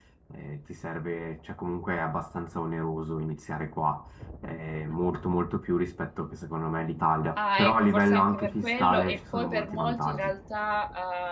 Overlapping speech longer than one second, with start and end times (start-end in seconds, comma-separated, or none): 7.4-10.3